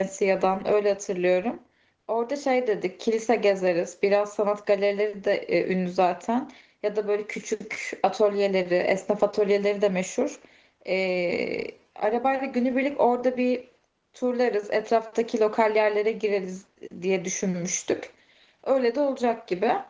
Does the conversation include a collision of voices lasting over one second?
No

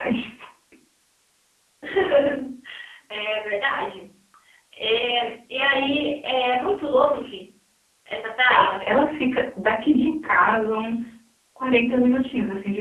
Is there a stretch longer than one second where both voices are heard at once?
No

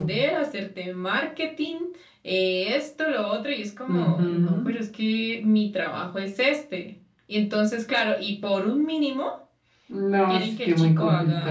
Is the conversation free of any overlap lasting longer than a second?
No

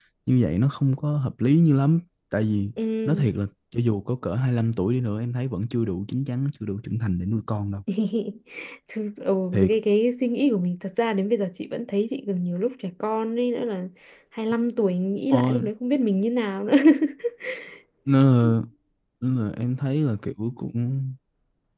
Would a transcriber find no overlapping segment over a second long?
Yes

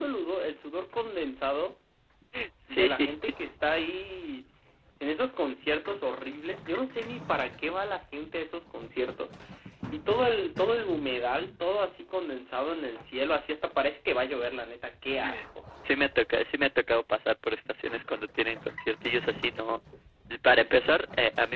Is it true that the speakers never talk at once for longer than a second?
Yes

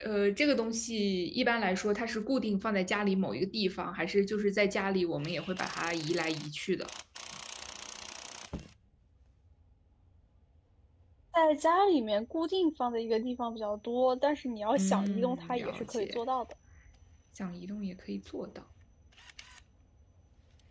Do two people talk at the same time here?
Yes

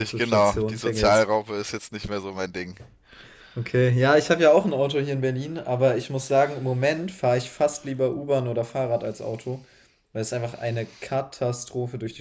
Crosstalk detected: Yes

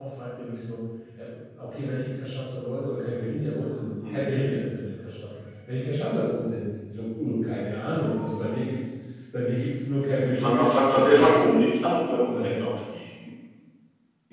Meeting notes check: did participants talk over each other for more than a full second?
Yes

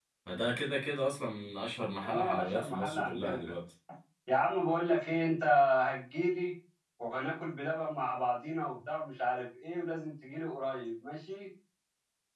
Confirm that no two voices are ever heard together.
No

